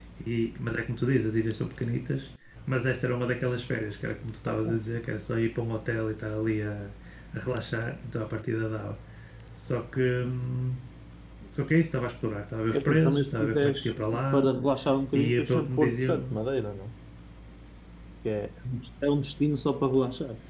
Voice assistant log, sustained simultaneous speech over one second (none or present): present